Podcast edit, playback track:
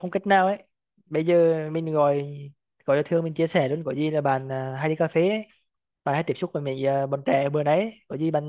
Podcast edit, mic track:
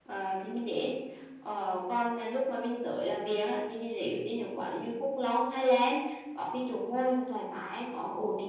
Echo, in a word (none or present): none